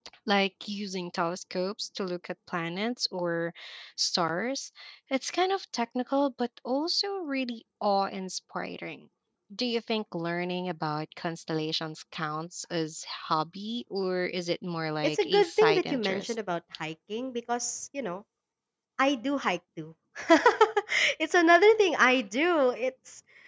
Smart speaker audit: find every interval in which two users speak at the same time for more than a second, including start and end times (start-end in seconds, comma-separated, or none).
15.0-16.3